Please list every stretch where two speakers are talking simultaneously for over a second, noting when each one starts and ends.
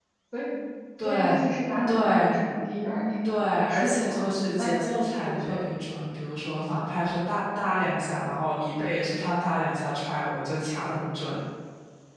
3.2-5.6

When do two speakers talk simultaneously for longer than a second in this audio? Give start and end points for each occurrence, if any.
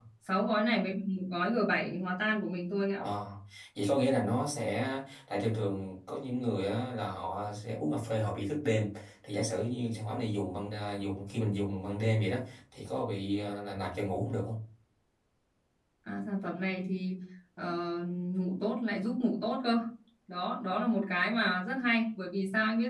none

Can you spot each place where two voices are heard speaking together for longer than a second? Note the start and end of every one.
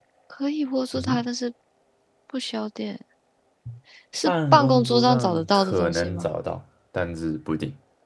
4.2-6.3

